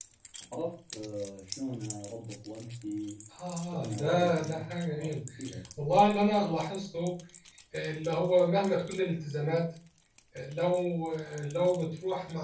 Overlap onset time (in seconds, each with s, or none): 3.7 s